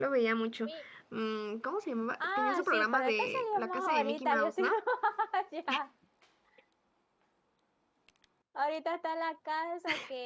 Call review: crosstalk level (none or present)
present